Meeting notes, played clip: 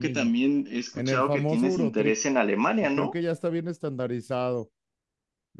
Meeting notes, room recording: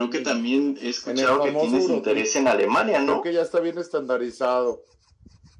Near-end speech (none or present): none